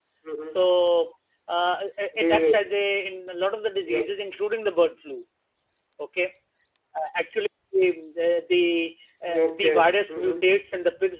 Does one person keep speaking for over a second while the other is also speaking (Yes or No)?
Yes